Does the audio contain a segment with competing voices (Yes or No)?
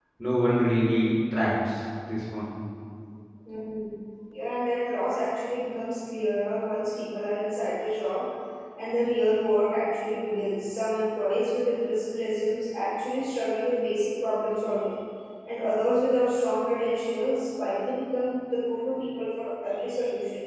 No